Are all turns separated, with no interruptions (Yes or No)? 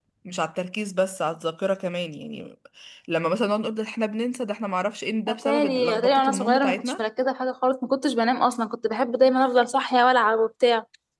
No